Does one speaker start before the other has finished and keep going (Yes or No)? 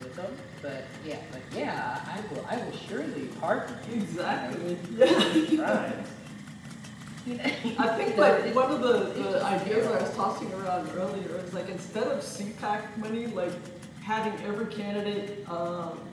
Yes